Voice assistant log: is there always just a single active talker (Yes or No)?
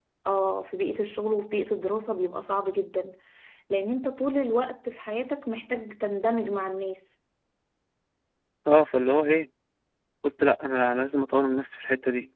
Yes